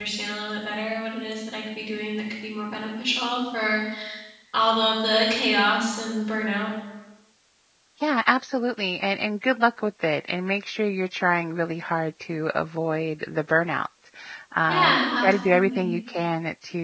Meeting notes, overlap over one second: present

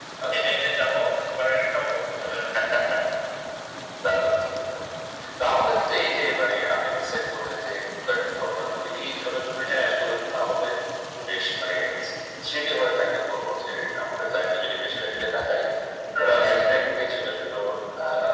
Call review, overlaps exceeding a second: none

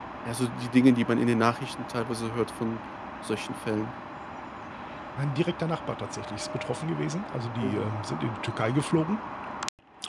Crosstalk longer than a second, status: none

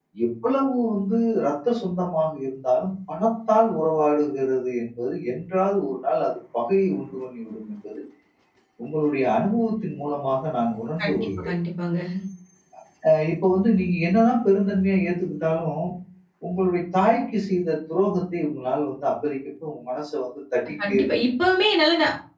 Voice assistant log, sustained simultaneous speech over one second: none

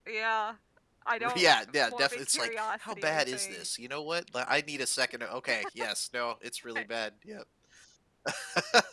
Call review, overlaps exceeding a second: present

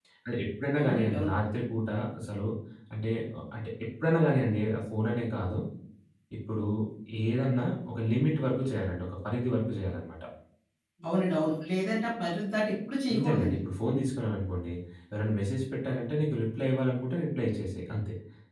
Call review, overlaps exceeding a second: none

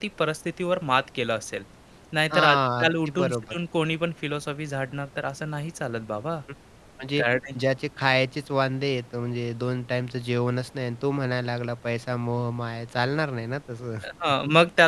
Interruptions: present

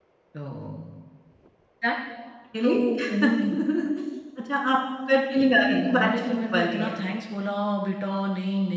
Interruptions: present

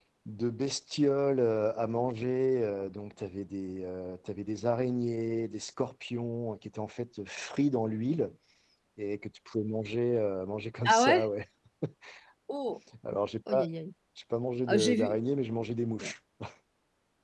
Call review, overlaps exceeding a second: none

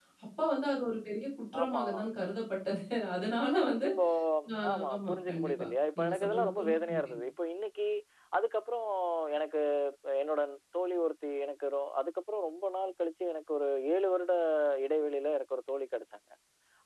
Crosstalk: present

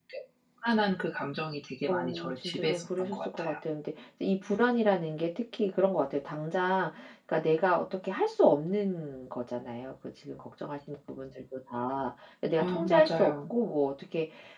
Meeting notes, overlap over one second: present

